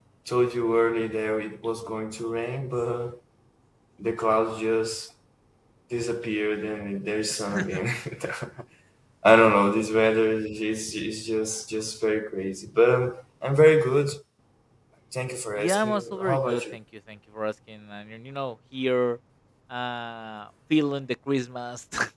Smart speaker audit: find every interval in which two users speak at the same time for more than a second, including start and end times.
15.6-16.8

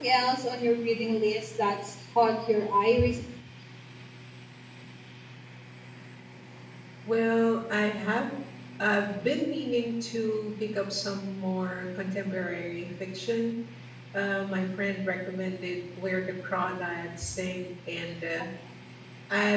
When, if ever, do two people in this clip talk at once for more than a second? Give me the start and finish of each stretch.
none

